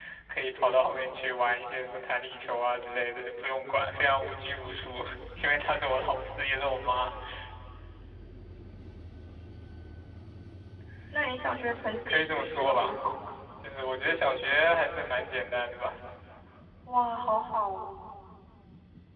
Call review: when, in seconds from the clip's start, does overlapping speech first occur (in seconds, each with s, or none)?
11.7 s